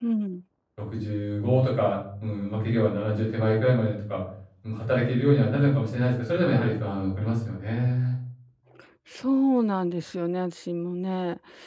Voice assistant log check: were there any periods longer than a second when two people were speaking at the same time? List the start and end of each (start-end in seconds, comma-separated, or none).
none